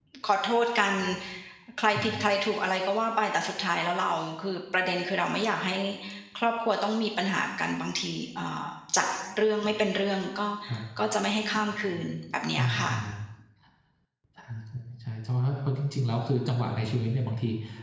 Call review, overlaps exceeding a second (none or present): none